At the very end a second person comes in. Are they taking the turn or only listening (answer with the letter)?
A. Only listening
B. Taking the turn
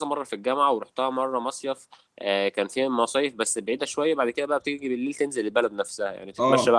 A